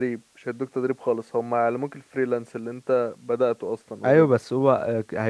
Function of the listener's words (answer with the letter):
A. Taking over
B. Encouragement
A